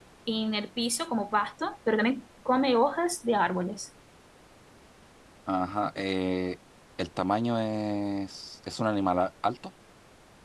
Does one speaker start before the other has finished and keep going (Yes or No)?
No